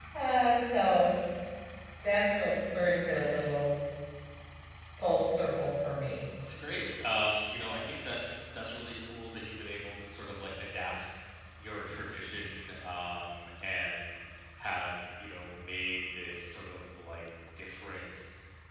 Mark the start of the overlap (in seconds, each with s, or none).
none